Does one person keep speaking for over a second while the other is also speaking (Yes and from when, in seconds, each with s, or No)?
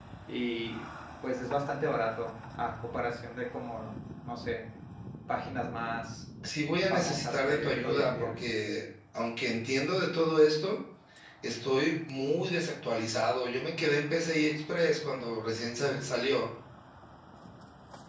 Yes, from 6.9 s